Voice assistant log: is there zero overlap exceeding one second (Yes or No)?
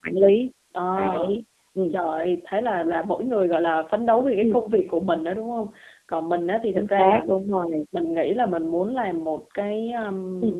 Yes